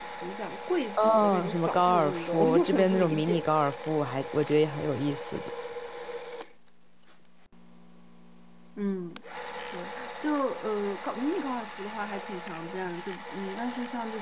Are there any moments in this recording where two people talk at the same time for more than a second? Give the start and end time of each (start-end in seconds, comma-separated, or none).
1.0-3.4